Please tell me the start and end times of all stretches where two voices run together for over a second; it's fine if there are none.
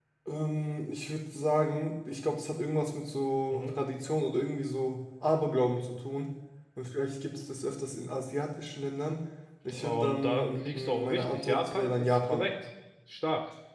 9.7-12.4

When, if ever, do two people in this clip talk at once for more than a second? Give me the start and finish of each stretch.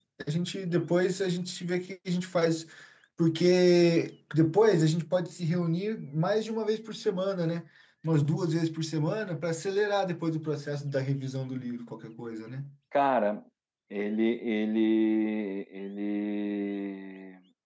none

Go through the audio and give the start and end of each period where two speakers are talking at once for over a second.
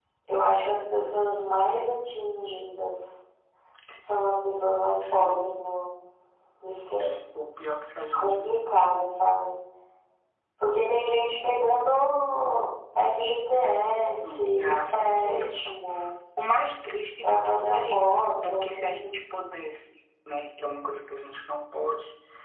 14.3-15.6, 17.2-19.2

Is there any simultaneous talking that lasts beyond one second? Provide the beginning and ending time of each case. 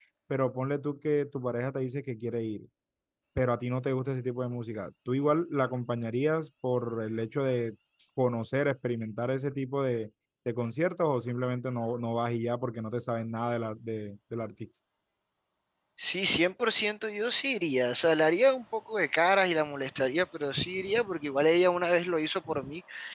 none

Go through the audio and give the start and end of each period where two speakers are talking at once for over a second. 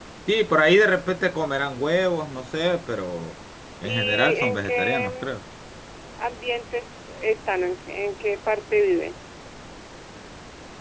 3.8-5.3

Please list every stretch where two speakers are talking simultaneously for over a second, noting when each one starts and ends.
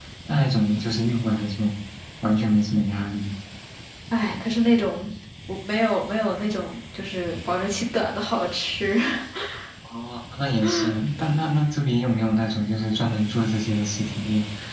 none

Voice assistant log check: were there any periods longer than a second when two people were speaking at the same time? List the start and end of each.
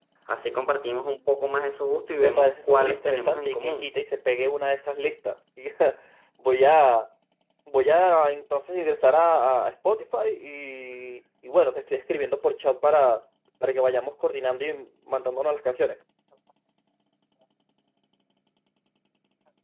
2.1-3.9

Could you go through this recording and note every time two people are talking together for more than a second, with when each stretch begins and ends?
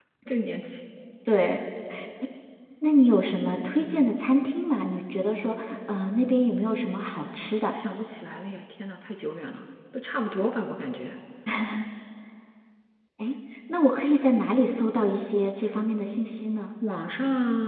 none

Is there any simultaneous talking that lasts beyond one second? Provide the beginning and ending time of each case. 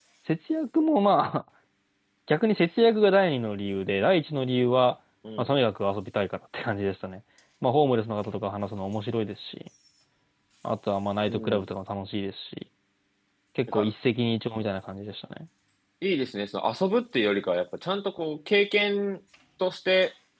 none

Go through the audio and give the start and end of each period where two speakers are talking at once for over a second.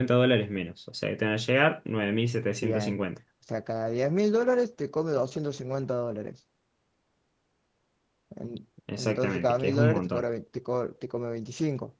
9.0-10.2

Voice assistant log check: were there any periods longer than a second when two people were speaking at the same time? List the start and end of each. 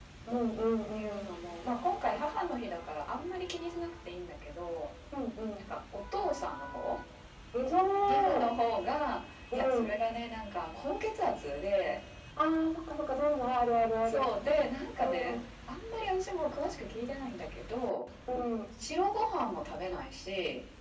none

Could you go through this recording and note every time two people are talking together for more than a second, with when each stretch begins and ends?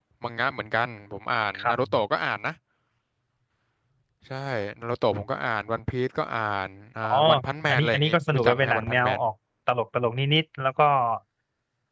7.7-9.2

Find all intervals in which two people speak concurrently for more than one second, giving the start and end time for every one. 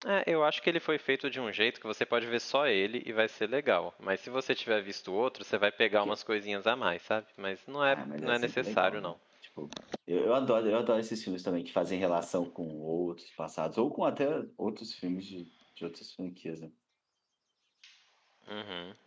7.9-9.1

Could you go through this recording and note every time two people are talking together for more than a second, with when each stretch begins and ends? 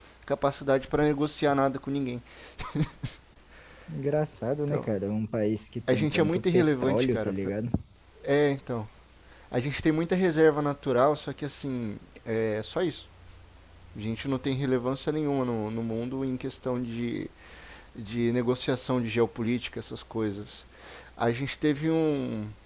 5.9-7.3

